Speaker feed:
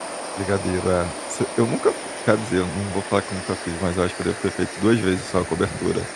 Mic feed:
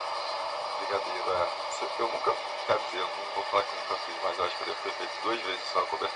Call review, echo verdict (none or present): present